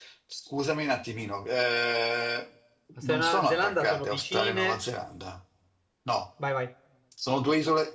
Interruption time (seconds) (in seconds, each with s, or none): 3.0 s